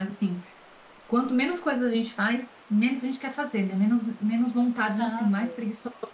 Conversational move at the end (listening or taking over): listening